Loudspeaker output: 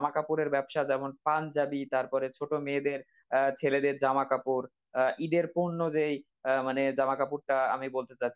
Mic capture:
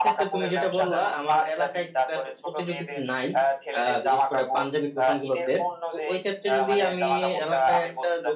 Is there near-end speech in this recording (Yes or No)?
Yes